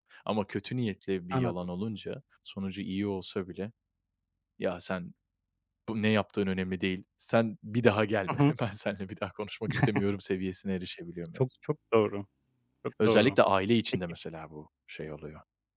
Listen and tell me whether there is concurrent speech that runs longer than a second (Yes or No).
No